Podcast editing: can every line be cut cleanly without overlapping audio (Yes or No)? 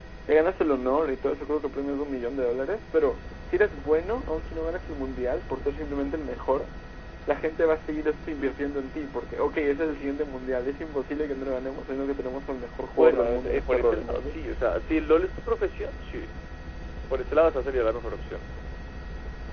No